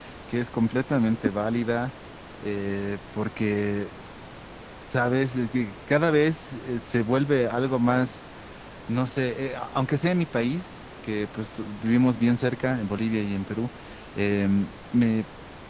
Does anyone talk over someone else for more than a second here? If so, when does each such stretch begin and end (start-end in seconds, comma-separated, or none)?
none